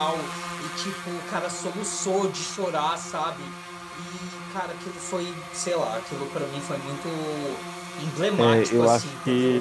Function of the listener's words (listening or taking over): taking over